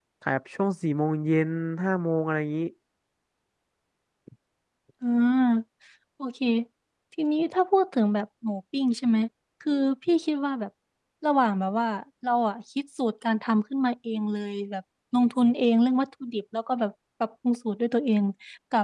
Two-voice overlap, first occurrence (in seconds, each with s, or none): none